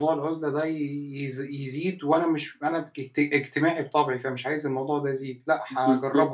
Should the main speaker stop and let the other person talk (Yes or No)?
Yes